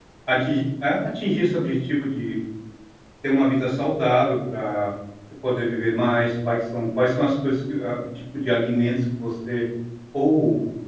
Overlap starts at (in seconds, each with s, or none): none